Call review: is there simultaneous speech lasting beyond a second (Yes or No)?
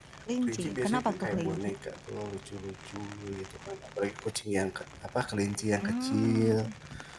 Yes